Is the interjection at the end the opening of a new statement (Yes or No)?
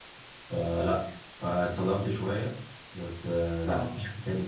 No